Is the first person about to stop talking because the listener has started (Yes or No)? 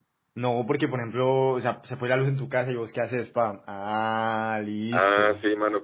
Yes